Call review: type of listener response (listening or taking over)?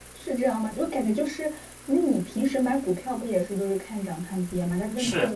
taking over